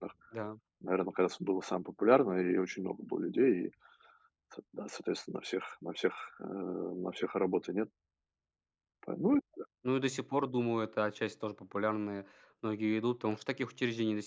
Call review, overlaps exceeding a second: none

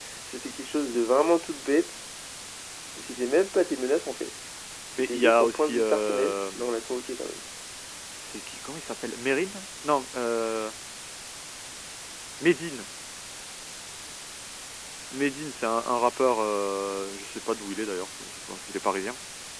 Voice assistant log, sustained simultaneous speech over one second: present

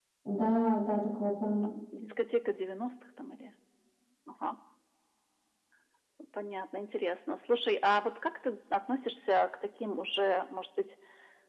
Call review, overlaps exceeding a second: none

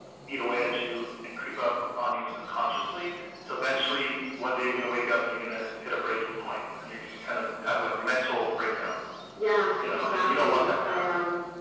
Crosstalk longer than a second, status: present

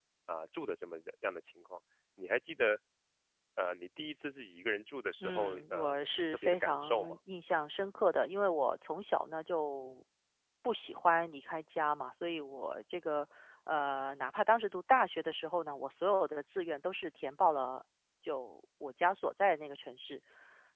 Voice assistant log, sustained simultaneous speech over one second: present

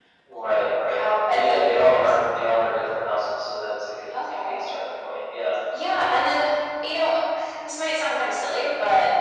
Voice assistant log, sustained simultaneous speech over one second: present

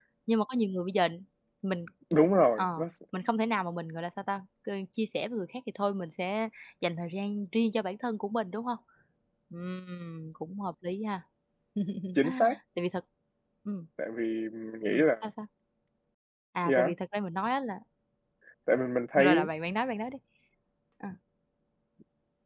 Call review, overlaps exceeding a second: none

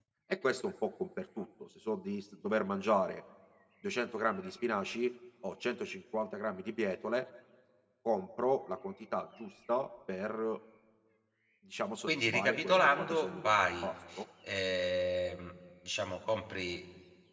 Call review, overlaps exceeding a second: present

